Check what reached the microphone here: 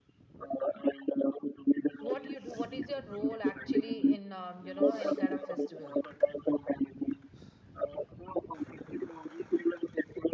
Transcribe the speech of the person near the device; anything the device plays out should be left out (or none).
What you do? What is your role actually in um, you know any kind of festival?